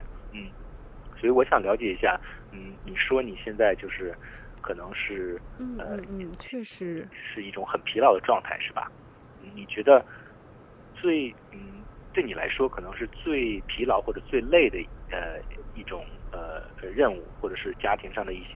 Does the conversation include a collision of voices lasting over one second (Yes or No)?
No